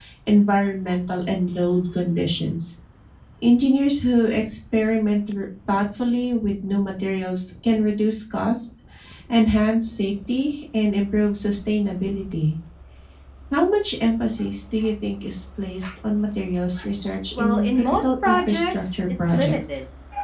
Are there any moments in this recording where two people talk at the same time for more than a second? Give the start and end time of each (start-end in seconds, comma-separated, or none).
17.4-19.6